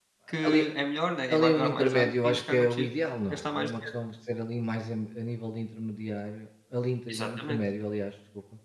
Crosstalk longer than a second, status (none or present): present